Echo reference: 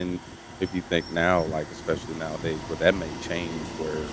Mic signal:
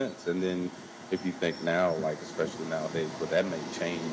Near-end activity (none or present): none